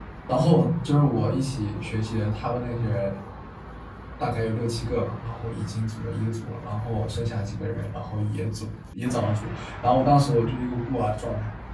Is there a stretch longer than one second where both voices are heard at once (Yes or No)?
No